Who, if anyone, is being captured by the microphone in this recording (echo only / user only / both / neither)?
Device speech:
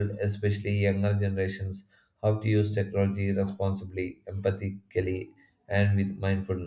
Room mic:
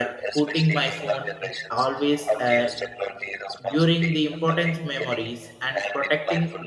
both